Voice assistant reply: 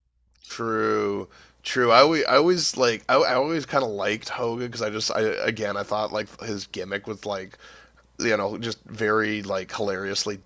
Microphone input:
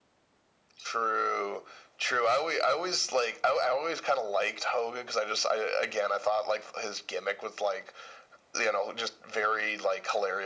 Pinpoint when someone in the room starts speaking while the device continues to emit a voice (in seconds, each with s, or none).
none